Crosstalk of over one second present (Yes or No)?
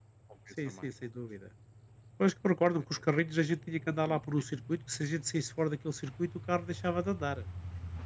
No